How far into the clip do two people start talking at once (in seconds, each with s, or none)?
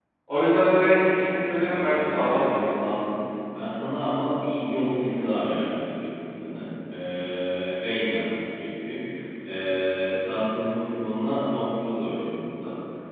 1.1 s